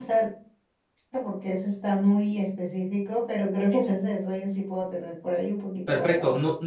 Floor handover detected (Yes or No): Yes